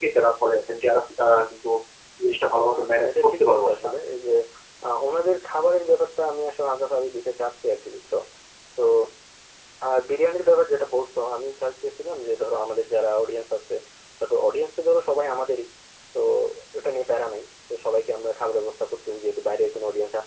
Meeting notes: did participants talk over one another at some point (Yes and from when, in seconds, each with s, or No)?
Yes, from 2.6 s